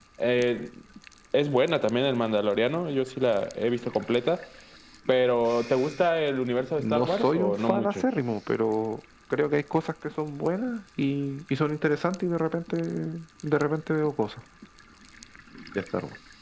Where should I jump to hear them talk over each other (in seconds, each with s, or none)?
6.8 s